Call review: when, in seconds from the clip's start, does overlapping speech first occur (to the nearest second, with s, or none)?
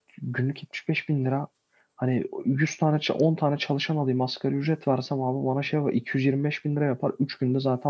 none